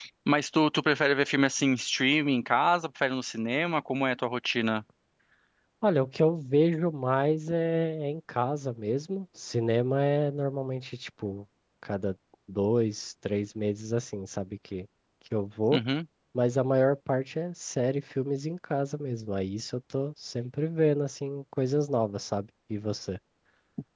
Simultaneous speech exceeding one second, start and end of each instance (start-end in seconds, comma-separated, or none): none